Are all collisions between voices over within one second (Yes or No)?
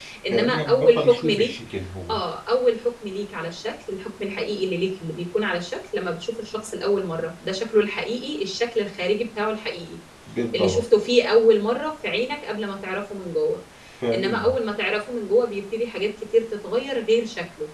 No